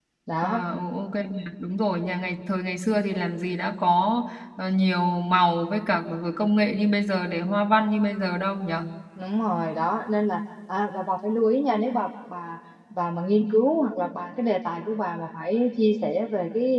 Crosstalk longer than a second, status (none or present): none